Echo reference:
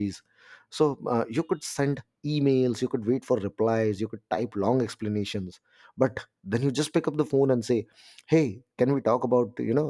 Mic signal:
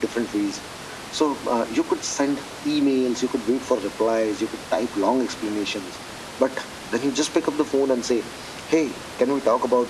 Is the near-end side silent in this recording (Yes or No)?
Yes